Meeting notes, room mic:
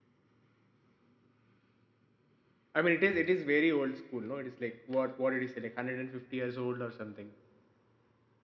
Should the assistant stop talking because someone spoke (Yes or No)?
Yes